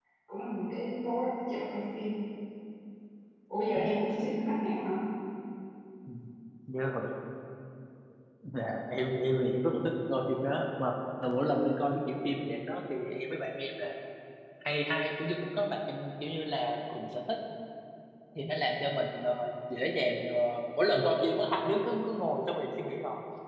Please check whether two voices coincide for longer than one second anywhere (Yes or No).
No